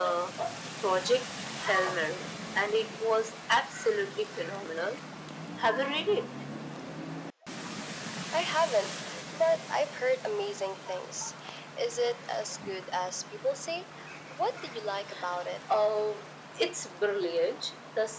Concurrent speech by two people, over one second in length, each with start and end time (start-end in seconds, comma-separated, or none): none